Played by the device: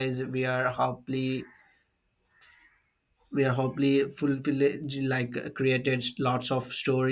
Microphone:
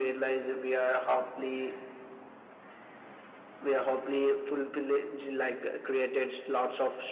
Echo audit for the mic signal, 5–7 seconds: echo only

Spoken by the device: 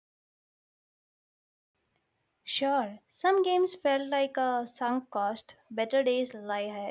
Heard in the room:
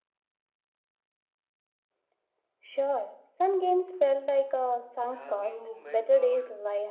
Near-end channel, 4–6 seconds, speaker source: both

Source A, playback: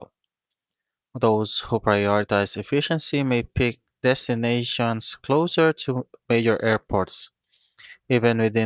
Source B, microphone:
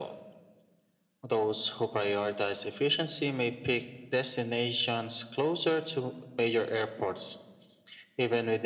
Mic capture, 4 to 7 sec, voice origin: echo only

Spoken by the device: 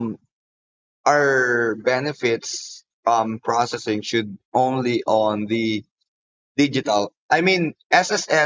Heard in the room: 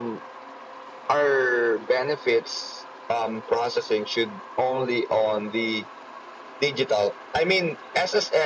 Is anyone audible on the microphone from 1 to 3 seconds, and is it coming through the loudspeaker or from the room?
echo only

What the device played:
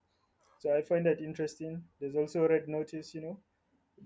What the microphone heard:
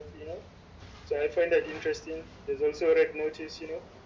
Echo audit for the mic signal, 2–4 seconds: echo only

